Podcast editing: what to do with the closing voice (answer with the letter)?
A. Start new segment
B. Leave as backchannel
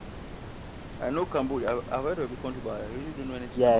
A